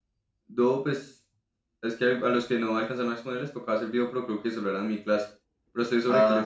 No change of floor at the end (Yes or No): No